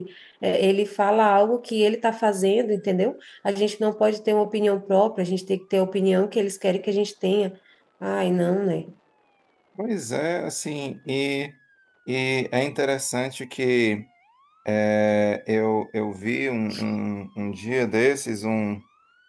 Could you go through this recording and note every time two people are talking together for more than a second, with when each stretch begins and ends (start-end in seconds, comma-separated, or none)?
none